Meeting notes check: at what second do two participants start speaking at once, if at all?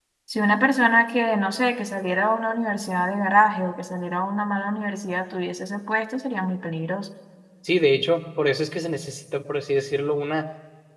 none

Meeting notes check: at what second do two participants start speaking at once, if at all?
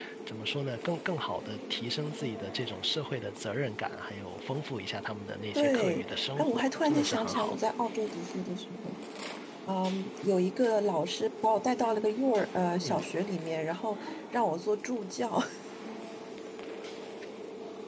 6 s

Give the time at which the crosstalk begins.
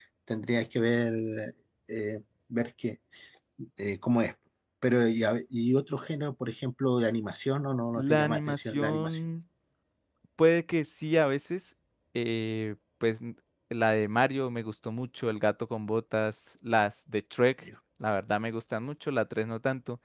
8 s

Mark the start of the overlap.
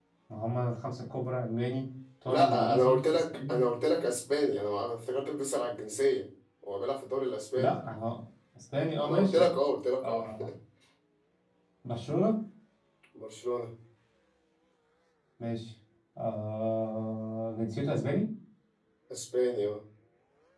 2 s

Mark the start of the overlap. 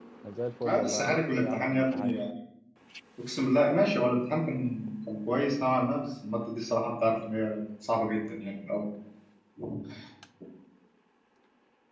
1 s

